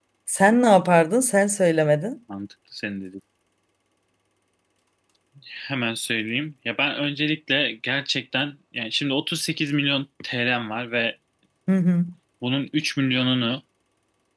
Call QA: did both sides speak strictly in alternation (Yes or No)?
Yes